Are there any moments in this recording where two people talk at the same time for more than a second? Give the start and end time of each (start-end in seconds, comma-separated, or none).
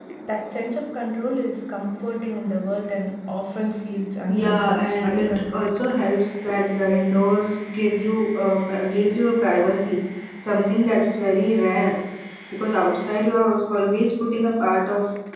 4.3-5.9